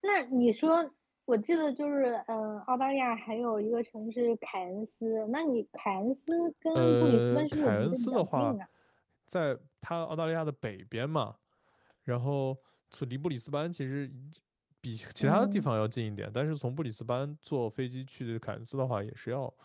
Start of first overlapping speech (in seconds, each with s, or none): 6.8 s